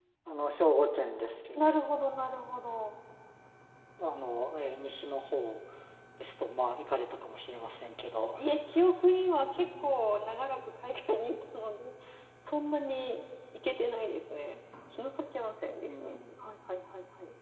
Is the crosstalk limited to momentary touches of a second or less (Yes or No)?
Yes